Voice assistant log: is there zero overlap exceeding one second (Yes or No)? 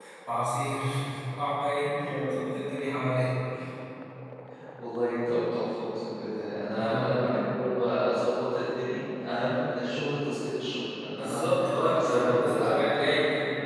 No